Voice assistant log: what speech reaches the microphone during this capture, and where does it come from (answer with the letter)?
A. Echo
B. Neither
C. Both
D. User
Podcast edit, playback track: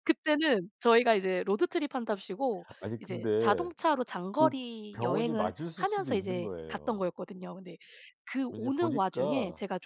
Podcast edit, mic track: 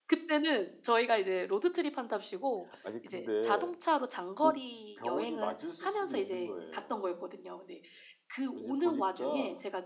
A